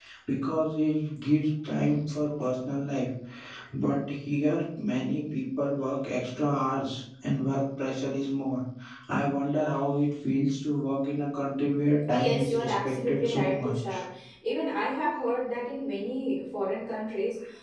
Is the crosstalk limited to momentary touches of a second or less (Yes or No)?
No